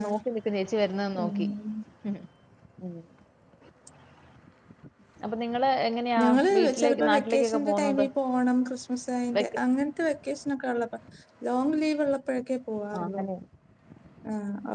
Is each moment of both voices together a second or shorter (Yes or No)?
No